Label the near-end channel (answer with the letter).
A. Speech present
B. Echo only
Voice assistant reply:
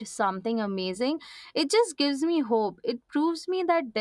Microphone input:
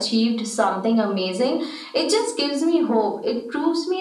B